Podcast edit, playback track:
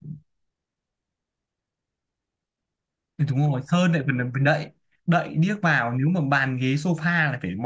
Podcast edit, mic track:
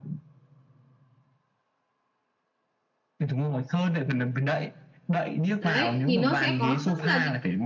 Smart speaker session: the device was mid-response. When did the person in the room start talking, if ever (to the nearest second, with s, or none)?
6 s